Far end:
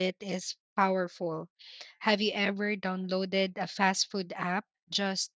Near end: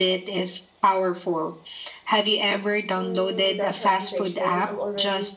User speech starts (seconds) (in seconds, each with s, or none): 3.0 s